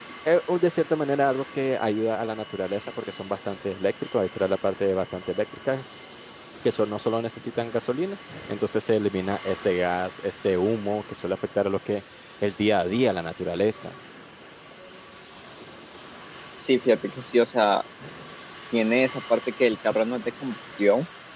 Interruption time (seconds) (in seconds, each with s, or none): none